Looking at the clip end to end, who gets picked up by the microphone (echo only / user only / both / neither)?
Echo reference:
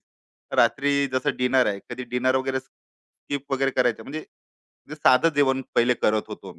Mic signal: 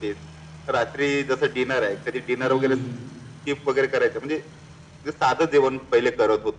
both